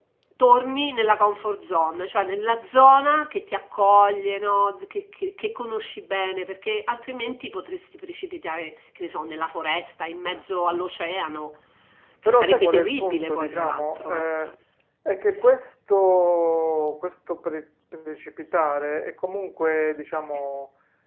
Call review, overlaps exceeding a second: present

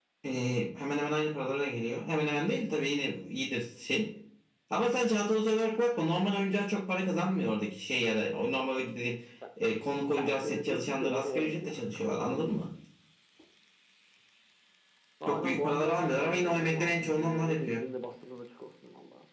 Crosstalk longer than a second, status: present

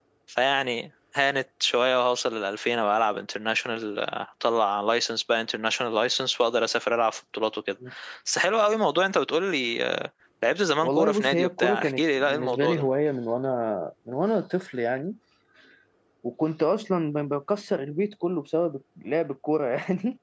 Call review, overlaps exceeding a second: present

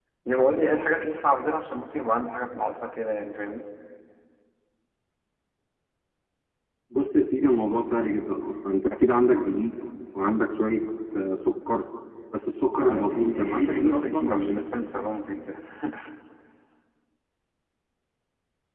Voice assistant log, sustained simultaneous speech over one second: present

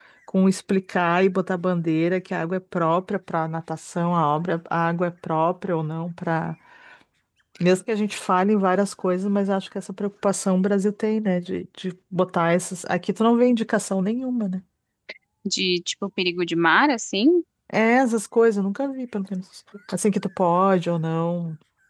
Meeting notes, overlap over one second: none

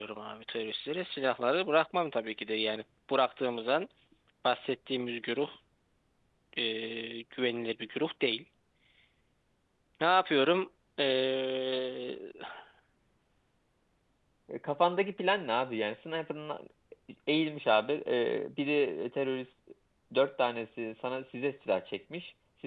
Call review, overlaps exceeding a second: none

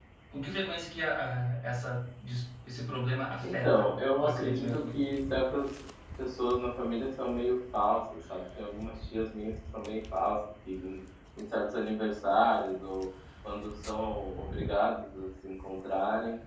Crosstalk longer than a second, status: present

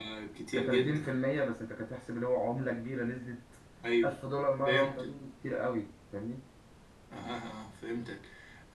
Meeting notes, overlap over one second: none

